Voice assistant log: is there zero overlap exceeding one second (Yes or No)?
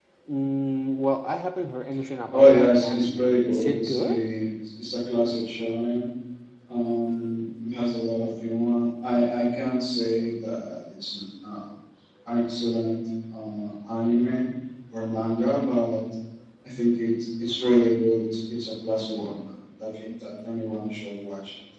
No